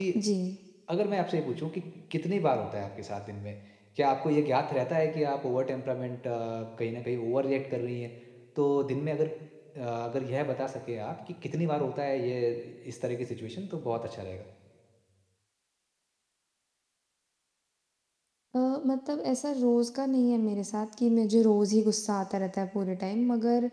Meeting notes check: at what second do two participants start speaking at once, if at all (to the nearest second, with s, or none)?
none